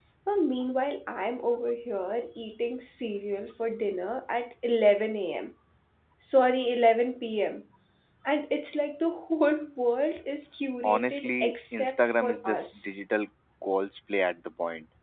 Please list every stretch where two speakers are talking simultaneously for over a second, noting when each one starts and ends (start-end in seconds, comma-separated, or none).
10.8-12.9